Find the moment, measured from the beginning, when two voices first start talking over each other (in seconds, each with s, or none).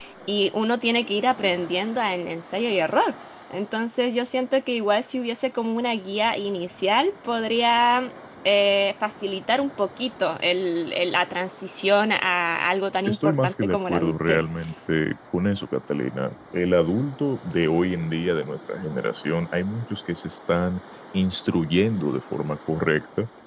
13.1 s